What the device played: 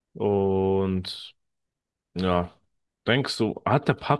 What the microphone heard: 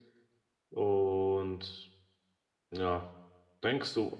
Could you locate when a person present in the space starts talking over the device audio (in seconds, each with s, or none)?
none